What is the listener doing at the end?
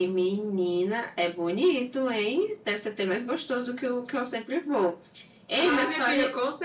taking over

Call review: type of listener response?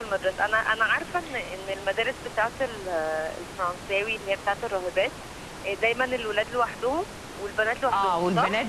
taking over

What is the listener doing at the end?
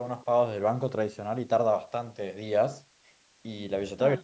listening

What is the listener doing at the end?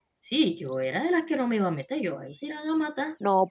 taking over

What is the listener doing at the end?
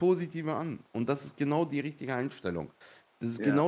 listening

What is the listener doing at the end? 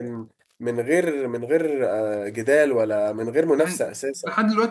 taking over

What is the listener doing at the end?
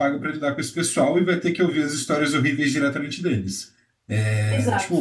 listening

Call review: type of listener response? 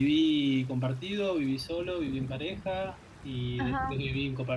listening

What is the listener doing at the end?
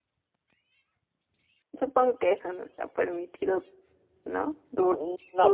taking over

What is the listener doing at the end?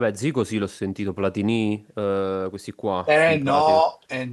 taking over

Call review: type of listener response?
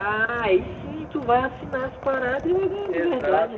taking over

